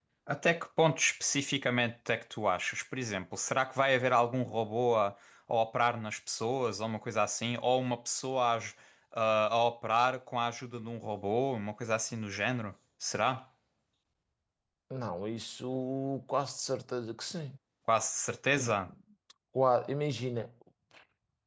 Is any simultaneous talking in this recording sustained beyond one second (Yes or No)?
No